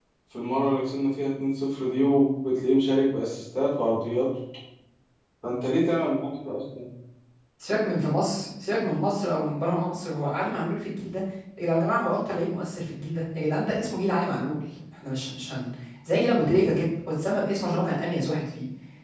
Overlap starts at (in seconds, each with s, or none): none